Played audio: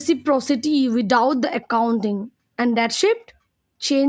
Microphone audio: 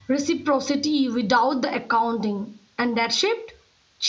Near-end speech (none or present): none